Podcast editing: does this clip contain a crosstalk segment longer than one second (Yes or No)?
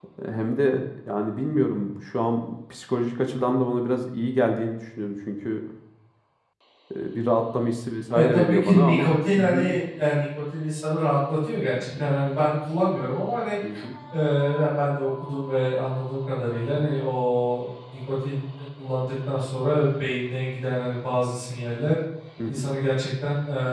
Yes